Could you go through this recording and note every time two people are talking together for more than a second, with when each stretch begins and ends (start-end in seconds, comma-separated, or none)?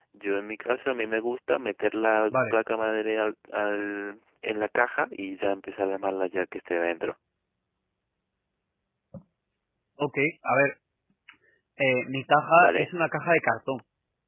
none